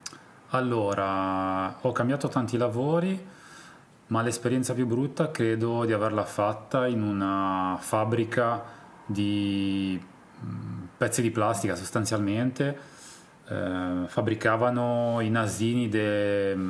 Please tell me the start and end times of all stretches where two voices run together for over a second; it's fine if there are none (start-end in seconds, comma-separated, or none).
none